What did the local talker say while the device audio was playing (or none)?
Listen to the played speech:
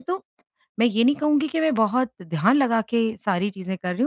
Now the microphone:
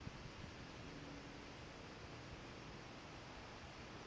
none